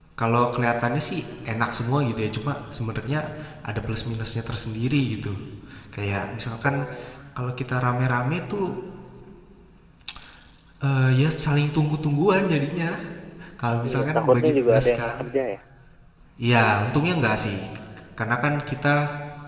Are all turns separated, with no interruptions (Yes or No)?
No